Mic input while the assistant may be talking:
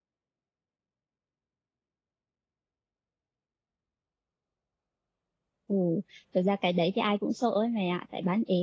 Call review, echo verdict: none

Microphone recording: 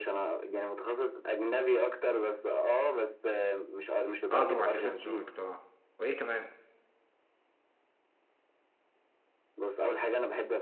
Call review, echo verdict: present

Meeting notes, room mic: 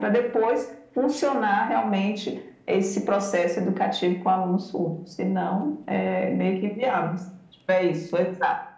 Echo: present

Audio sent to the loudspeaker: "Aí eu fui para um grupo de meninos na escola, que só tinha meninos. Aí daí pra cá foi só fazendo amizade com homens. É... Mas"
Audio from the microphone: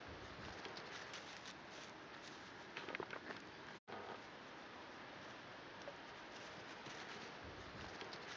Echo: none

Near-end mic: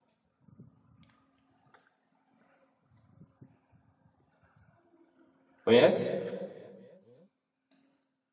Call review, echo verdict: none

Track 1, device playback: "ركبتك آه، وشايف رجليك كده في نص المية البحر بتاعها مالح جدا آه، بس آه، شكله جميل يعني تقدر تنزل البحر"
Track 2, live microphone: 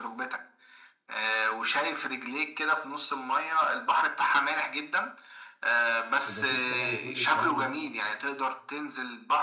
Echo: present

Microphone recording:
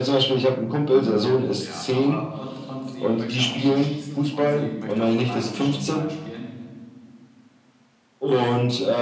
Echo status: present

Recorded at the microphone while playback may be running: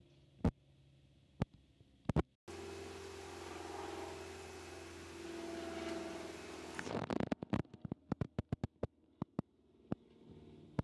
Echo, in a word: none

